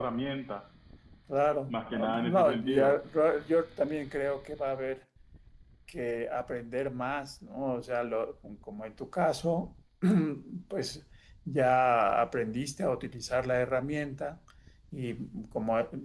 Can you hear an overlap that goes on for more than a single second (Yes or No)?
Yes